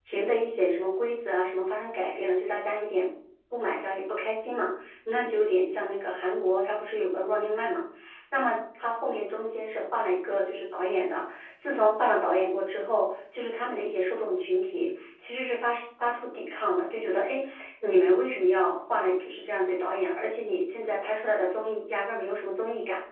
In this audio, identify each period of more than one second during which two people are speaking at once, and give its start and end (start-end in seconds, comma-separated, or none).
none